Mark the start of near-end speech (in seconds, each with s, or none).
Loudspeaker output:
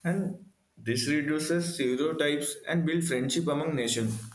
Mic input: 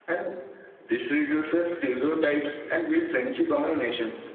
none